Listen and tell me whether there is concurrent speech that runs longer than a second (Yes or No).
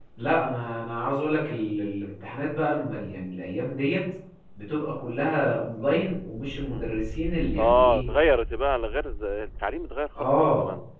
No